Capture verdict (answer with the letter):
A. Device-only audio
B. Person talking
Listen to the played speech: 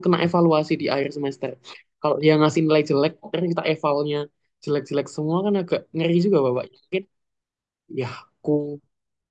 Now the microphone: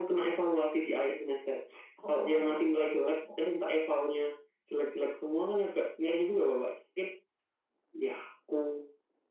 B